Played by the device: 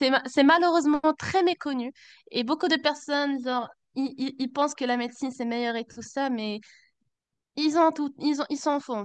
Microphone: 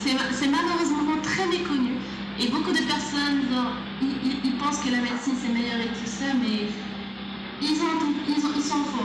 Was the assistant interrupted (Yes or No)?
No